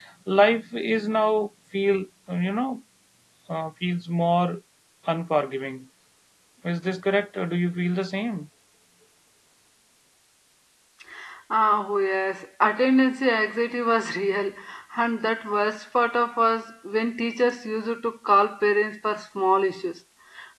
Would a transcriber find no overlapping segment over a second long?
Yes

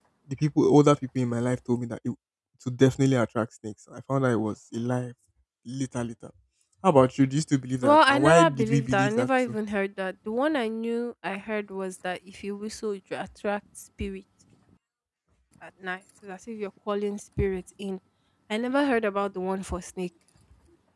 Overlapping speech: Yes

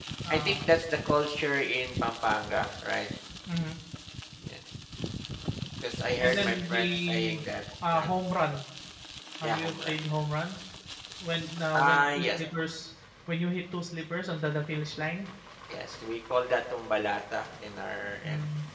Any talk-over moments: Yes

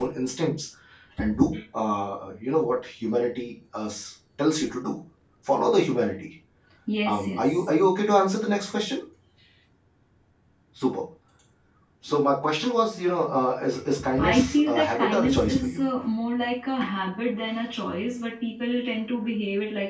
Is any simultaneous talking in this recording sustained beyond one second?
Yes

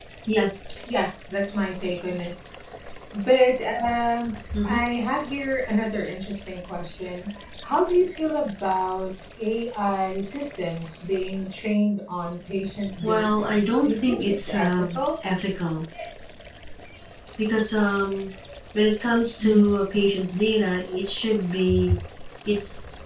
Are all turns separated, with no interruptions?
No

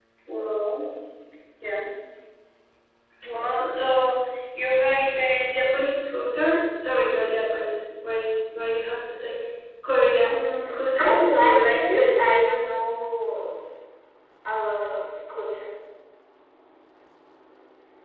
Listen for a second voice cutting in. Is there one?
Yes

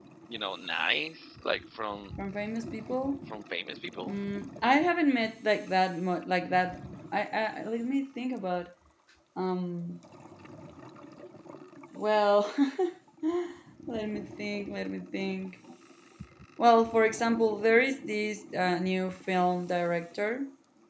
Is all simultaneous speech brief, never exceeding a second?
Yes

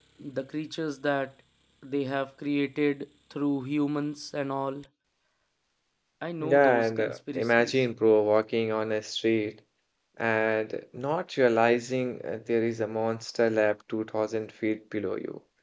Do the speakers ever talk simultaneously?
Yes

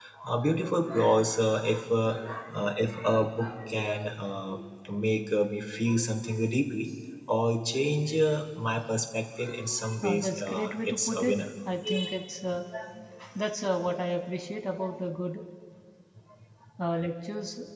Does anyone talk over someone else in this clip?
Yes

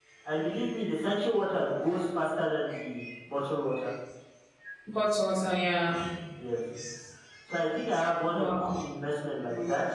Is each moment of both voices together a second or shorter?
Yes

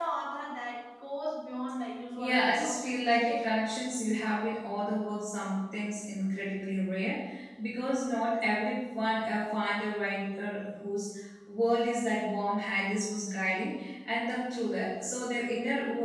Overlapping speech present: Yes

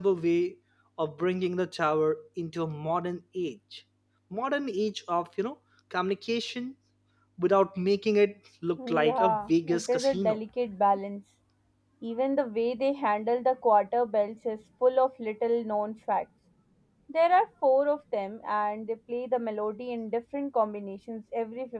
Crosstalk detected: Yes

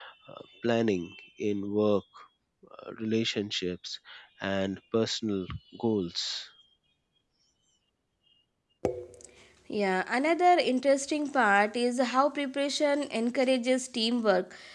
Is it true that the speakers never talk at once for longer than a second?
Yes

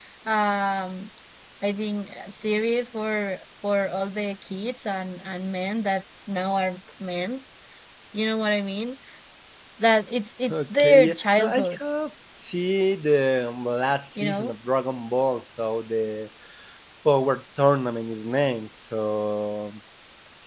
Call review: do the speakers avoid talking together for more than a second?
No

